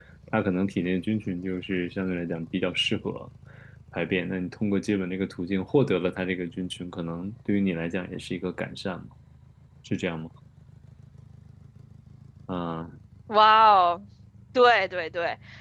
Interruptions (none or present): none